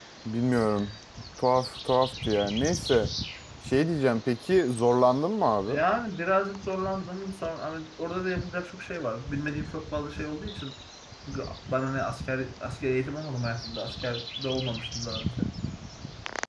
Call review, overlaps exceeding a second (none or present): none